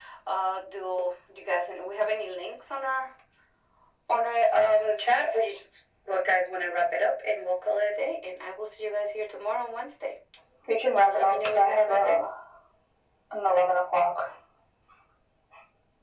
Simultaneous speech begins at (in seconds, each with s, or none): 10.9 s